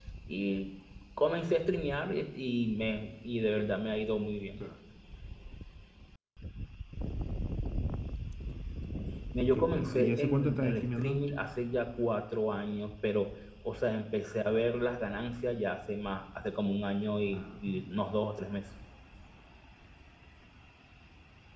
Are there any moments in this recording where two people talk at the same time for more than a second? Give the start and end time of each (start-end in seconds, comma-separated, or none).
9.5-11.2